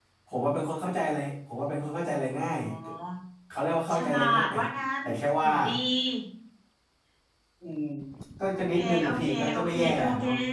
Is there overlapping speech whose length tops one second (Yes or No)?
Yes